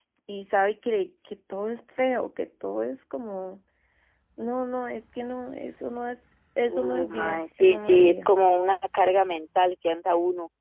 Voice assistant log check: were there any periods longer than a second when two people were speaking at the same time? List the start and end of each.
6.7-8.3

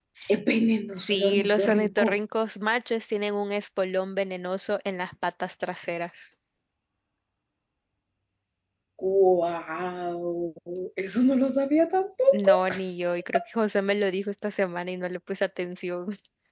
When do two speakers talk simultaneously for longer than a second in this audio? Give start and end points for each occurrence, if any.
0.9-2.2

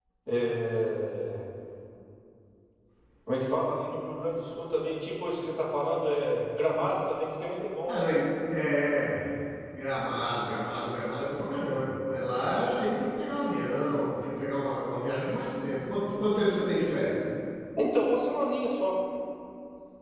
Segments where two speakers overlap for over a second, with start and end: none

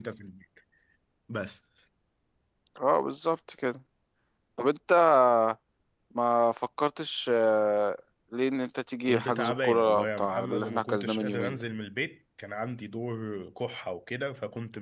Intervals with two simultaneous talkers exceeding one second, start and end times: 9.1-11.6

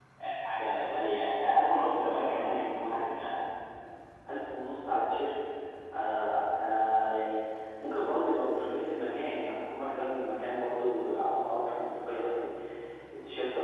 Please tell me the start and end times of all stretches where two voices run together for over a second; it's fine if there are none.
none

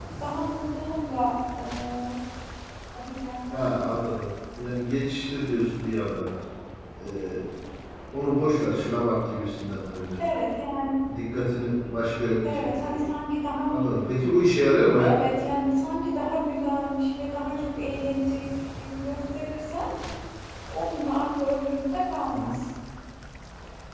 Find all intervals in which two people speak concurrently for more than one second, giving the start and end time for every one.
none

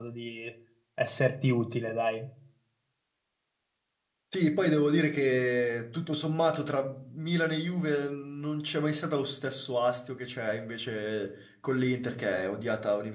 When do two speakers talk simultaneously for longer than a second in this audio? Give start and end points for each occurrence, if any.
none

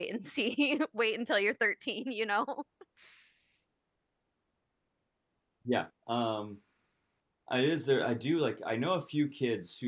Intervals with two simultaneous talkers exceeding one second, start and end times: none

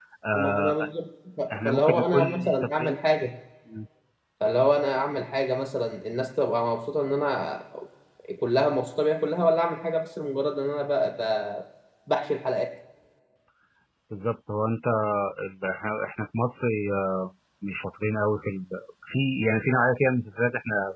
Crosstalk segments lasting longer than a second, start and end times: 1.5-3.0

